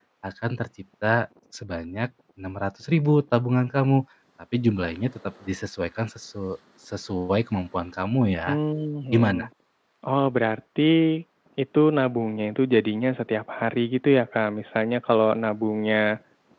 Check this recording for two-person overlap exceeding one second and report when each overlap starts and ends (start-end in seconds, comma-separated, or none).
none